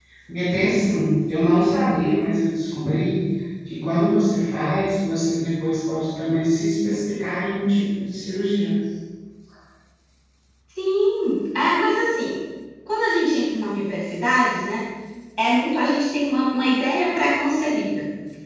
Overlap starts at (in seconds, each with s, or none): none